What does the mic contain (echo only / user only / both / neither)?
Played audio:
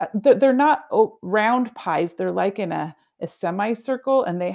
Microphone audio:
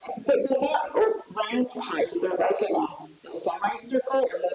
echo only